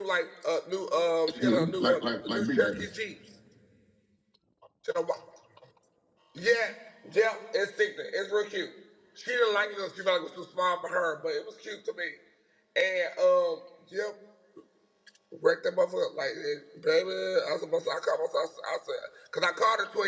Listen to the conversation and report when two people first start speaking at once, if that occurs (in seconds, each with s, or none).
1.3 s